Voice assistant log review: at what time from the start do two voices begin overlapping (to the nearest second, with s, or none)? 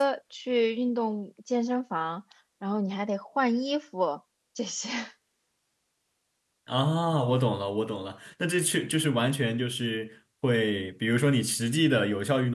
none